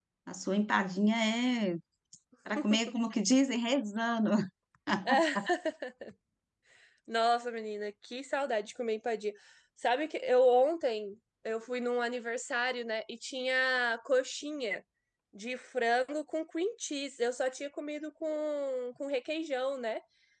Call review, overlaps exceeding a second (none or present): none